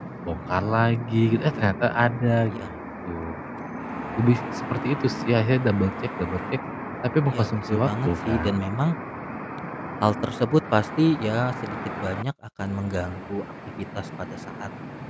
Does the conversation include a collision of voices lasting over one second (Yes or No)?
Yes